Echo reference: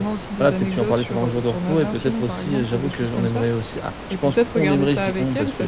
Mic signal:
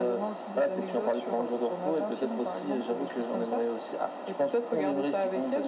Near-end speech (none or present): none